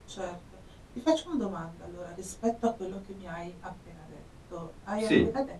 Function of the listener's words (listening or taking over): listening